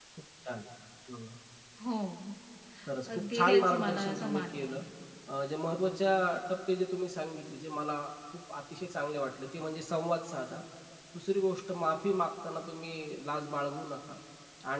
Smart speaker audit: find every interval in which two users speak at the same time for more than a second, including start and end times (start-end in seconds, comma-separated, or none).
3.1-4.8